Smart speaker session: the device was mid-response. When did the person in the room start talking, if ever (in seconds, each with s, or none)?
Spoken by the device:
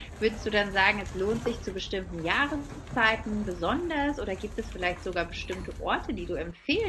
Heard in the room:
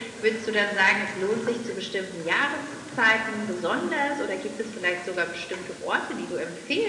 none